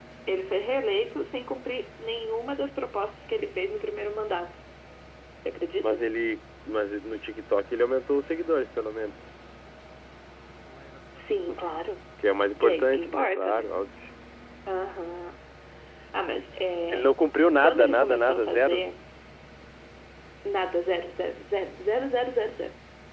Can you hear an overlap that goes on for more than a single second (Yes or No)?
Yes